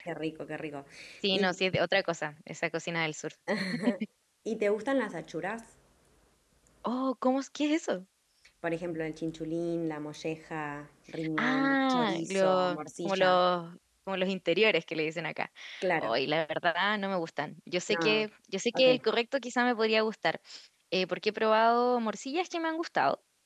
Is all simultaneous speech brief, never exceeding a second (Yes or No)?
No